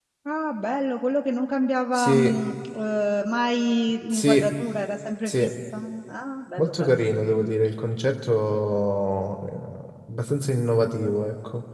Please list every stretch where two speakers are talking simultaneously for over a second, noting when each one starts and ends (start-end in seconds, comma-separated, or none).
none